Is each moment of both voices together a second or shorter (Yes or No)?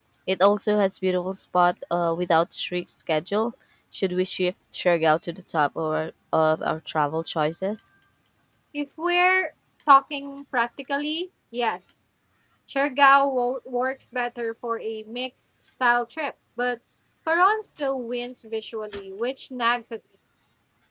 Yes